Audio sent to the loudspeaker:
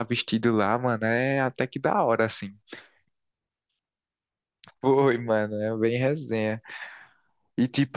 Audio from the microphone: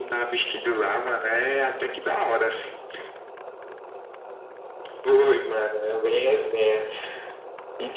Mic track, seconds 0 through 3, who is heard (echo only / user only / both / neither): echo only